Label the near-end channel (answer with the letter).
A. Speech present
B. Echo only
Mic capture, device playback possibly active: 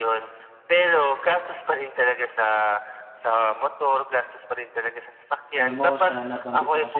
A